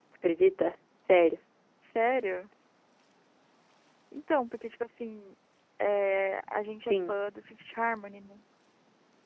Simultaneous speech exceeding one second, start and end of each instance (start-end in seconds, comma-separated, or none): none